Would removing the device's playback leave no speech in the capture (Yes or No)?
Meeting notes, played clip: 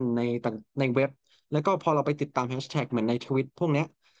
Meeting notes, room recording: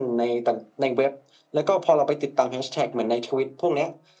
Yes